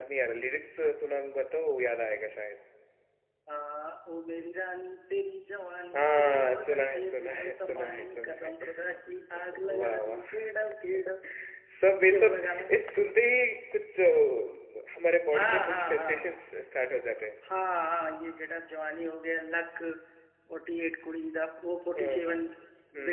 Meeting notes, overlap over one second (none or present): present